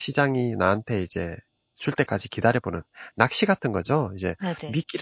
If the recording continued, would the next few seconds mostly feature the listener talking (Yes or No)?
No